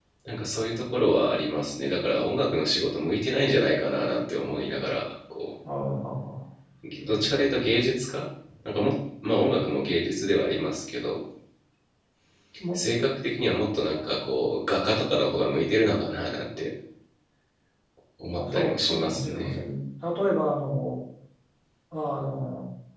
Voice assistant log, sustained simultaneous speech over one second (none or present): present